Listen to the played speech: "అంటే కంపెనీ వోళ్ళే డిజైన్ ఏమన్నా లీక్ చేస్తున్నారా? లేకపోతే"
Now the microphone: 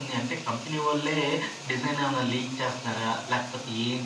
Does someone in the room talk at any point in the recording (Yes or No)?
No